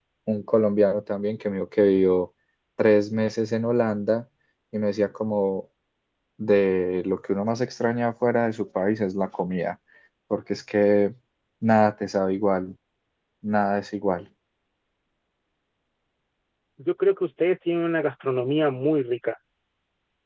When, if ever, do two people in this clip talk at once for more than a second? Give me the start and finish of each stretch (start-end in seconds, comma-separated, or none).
none